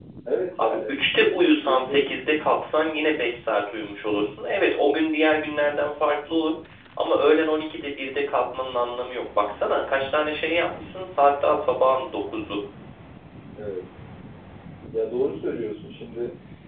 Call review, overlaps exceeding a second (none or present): none